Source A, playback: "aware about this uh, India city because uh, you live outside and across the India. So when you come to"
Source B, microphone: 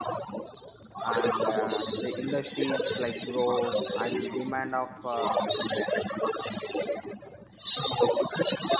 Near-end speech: present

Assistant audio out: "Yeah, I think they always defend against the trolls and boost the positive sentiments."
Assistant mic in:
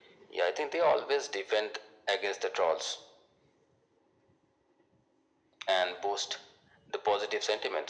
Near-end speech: none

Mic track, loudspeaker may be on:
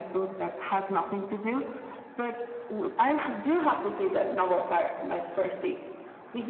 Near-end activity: none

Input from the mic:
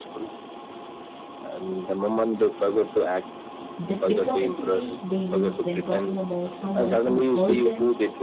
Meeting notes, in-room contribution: present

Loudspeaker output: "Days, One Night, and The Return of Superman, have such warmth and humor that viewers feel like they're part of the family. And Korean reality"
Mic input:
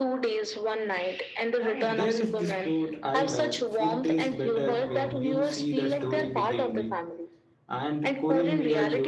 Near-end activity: present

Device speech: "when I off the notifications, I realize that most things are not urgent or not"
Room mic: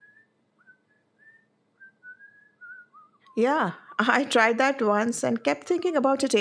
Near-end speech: present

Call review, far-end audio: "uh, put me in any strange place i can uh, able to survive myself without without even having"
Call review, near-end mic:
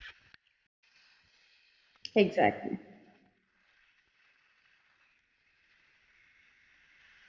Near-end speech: present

